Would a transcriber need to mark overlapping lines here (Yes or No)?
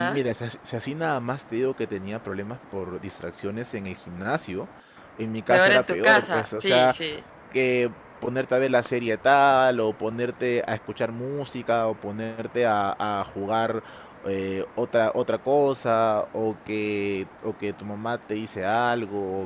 Yes